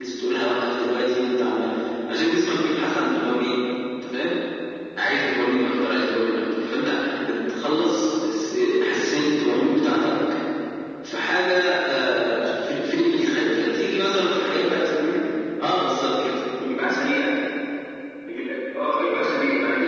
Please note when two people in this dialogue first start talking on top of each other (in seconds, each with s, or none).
none